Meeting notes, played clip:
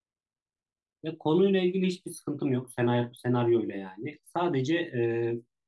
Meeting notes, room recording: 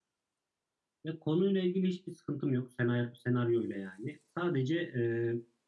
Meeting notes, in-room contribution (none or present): none